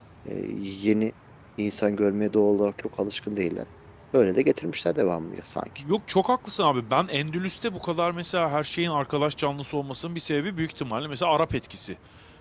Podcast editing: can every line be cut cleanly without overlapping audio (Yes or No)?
Yes